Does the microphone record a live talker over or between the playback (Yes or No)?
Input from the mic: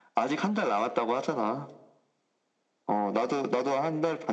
No